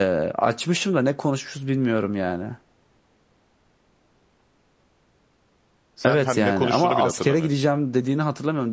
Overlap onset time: 6 s

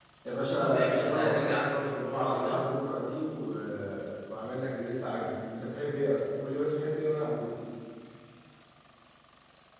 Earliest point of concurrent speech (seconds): 1 s

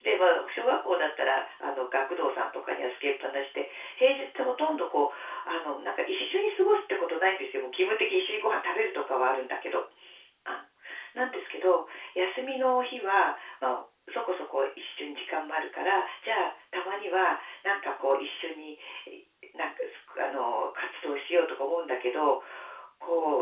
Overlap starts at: none

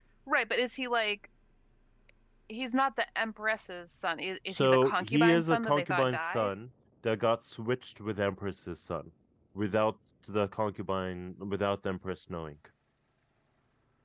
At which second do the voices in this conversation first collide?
4 s

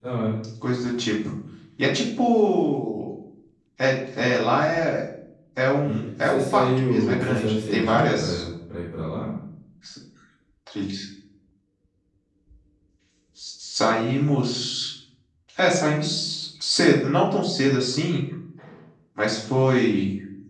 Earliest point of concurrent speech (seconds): 6 s

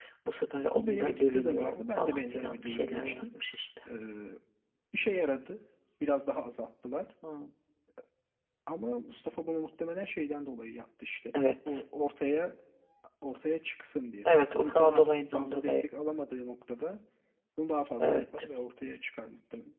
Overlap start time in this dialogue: 1 s

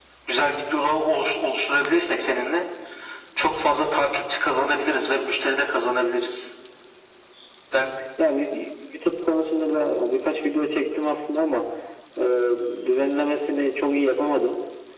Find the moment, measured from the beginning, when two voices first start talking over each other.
none

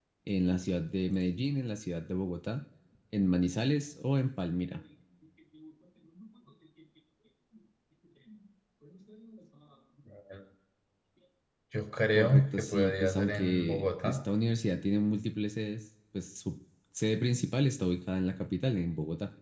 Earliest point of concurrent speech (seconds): 12 s

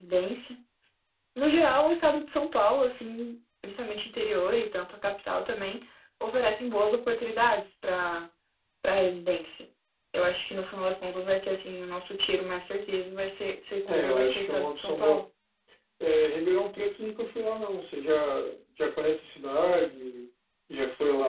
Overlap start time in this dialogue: 14 s

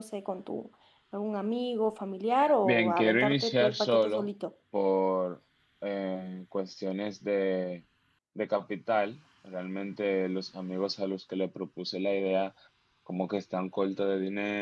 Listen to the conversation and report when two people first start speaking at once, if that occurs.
2 s

